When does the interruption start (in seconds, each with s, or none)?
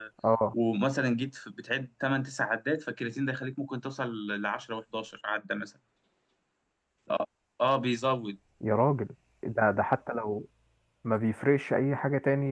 none